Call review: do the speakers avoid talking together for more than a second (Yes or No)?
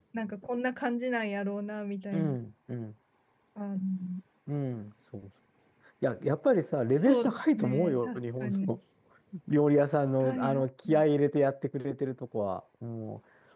No